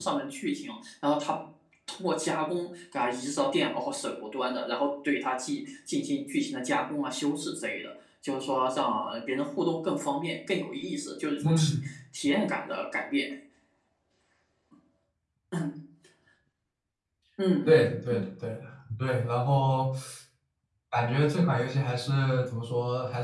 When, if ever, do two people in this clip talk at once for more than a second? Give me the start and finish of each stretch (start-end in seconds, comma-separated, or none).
none